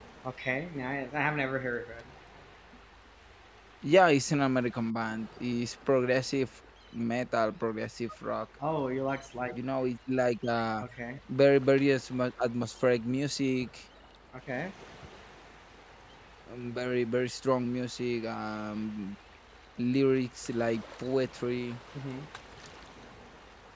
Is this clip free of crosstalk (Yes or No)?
Yes